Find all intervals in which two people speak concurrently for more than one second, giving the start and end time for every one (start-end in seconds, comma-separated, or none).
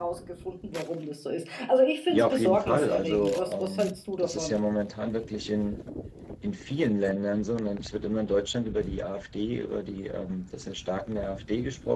2.1-4.5